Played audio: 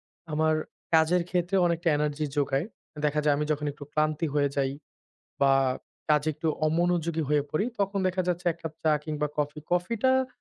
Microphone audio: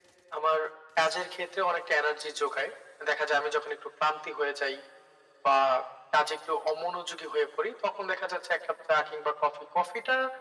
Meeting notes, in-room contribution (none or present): none